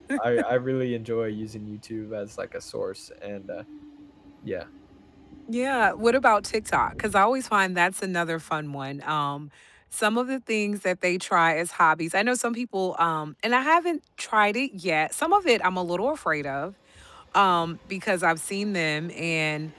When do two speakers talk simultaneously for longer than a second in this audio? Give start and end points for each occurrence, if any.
none

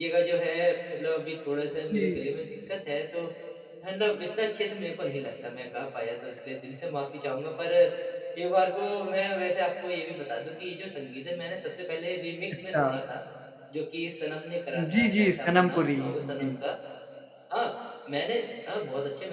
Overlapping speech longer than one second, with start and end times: 14.8-16.5

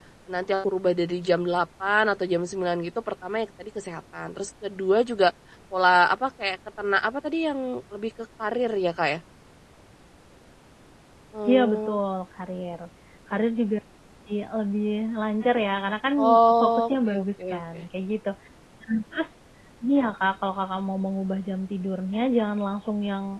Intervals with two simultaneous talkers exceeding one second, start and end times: 16.6-17.8

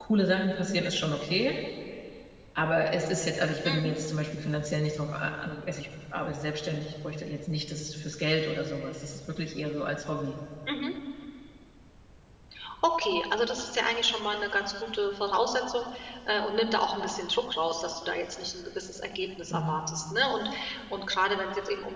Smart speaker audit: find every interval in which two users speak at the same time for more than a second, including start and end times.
none

